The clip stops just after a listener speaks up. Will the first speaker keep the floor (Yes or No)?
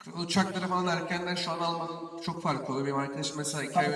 Yes